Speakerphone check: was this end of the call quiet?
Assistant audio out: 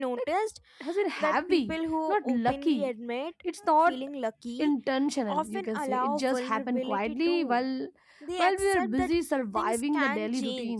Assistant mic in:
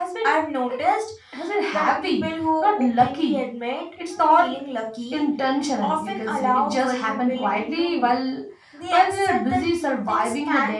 Yes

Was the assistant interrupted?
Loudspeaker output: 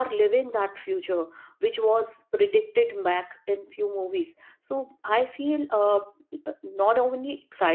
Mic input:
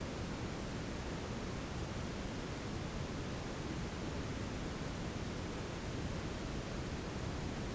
No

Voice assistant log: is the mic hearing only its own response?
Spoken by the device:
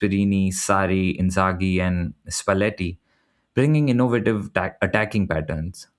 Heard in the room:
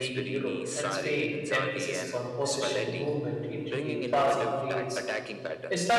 No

